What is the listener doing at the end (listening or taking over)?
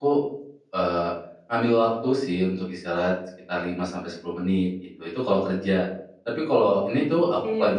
listening